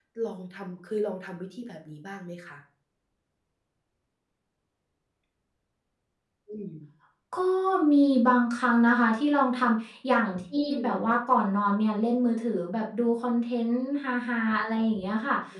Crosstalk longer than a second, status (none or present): none